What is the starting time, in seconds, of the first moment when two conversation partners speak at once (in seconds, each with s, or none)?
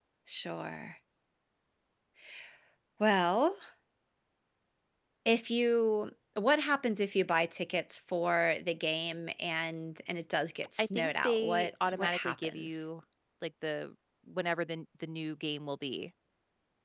10.8 s